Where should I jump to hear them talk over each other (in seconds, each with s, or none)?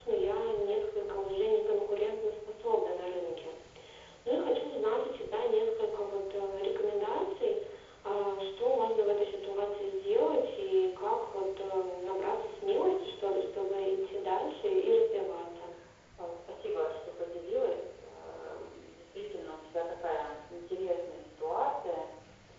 none